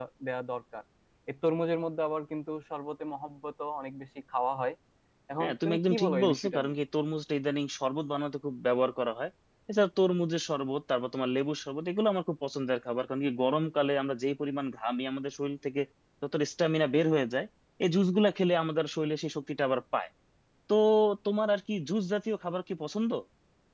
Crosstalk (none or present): present